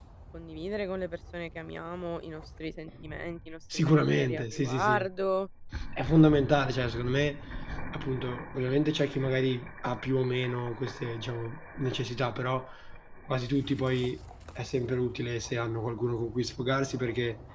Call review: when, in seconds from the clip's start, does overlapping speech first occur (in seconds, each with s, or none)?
3.7 s